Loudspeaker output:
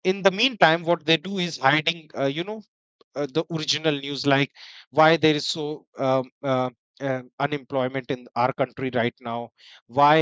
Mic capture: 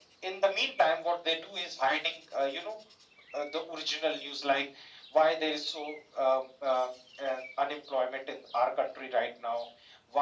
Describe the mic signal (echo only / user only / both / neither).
echo only